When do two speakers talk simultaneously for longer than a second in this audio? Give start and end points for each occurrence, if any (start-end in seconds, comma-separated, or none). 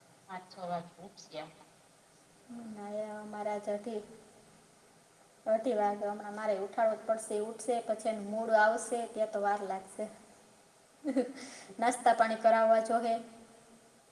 none